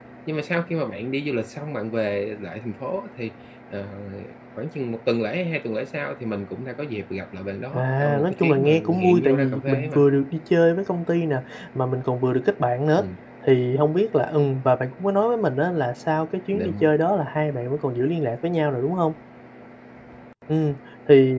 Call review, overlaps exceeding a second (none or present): present